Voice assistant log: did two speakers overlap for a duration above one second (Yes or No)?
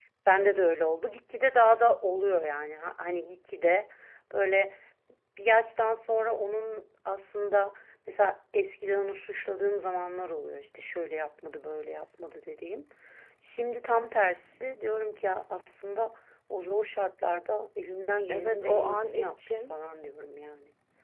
Yes